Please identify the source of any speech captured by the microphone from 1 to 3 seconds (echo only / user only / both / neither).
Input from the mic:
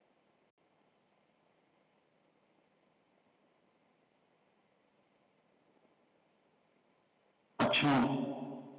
neither